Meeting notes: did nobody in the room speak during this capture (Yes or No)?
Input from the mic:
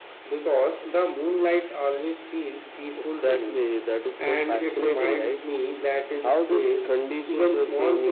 Yes